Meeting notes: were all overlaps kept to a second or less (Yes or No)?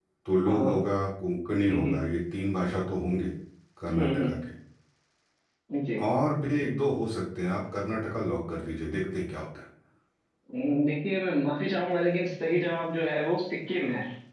Yes